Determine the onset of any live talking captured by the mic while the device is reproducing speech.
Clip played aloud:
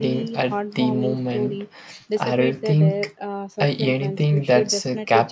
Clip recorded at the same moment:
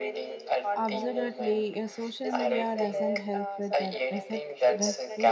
1 s

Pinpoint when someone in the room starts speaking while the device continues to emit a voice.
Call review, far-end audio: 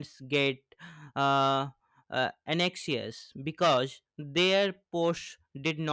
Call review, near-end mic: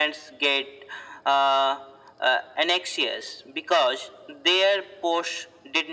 none

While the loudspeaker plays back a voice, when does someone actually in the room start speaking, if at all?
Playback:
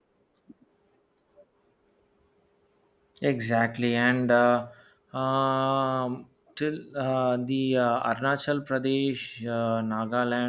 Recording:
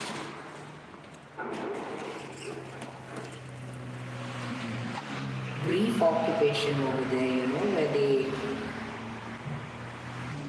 6 s

